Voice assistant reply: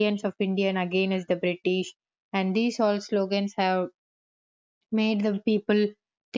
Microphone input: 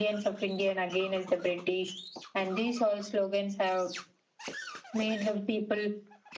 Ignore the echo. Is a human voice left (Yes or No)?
No